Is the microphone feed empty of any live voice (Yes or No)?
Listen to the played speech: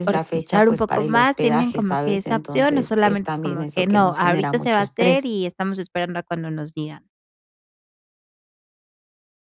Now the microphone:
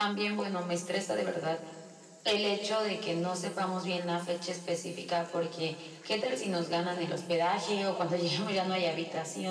No